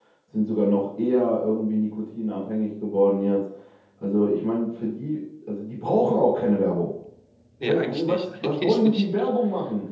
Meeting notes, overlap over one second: present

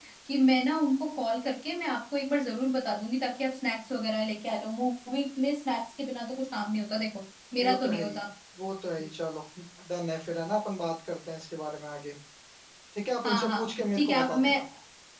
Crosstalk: present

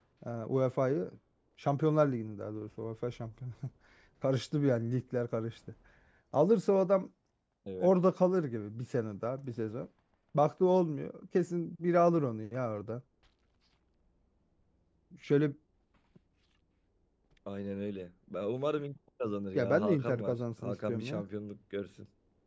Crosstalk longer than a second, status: present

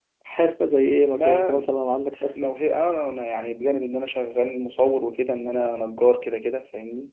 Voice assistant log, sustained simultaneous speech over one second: none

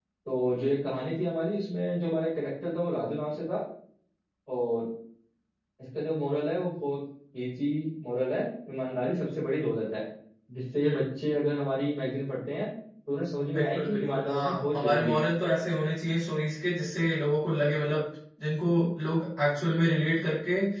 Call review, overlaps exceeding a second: present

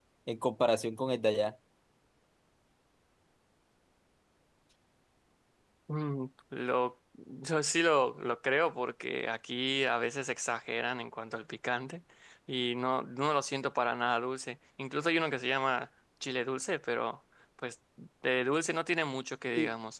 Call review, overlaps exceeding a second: none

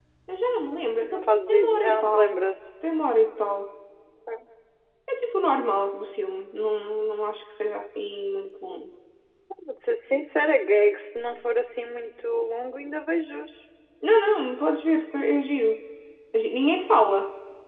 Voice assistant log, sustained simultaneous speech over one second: present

